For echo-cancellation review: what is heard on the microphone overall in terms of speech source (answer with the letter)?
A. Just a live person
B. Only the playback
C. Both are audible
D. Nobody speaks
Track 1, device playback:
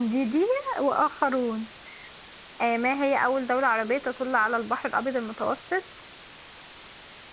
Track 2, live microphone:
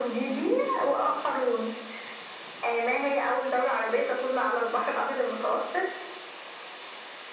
B